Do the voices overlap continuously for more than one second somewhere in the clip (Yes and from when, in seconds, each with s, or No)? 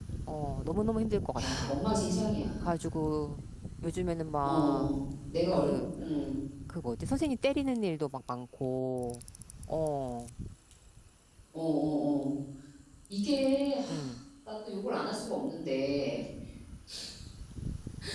No